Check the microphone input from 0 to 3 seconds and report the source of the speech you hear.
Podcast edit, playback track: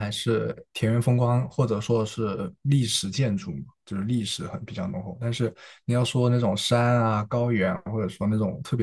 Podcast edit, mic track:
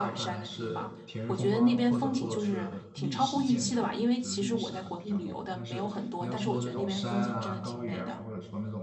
both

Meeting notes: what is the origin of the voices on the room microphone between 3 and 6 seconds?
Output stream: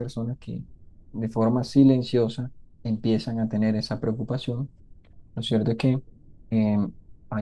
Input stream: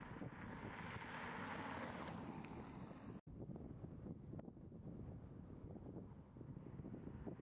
neither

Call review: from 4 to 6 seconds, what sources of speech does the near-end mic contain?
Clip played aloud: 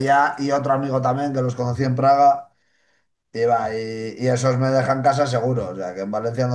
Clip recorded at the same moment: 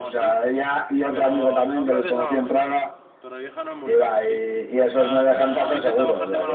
both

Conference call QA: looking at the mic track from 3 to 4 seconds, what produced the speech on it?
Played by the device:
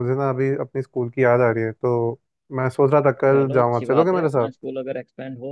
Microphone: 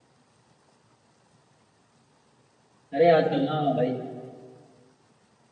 user only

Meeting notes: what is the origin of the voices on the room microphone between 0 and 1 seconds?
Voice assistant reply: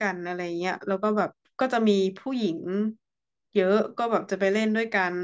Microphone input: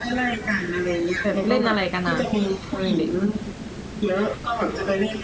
echo only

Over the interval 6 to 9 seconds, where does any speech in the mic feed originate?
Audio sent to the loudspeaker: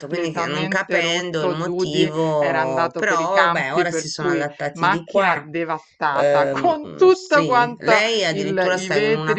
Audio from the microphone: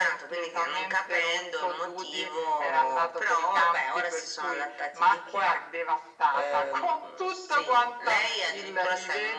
echo only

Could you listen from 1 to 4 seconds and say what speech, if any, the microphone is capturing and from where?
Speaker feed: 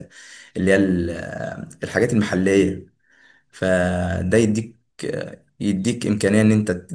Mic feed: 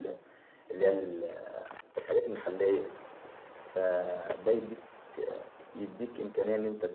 echo only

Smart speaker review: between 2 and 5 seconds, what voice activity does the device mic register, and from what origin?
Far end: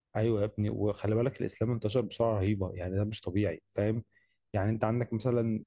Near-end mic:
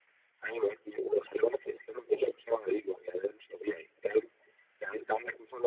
echo only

